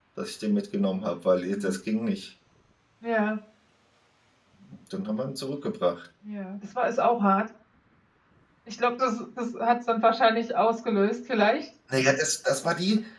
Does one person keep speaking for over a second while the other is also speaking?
No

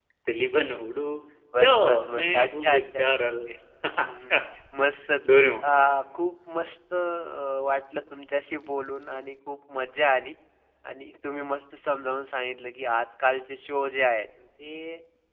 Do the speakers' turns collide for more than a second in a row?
Yes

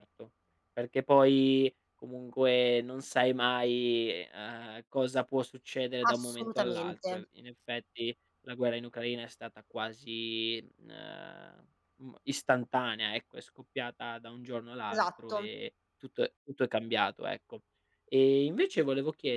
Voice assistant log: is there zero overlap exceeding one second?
No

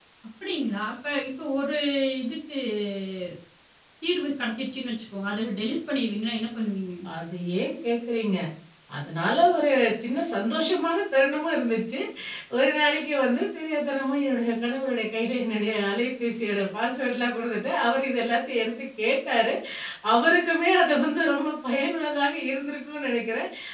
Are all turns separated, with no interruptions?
Yes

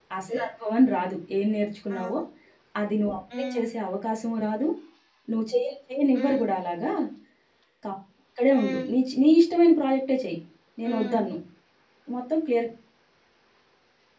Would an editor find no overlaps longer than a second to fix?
Yes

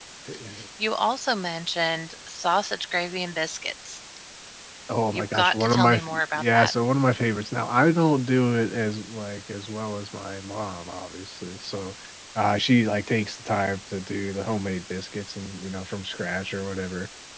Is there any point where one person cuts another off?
Yes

